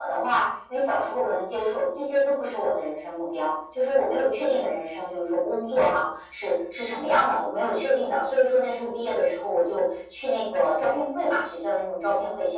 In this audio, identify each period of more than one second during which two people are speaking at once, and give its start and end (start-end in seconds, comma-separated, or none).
none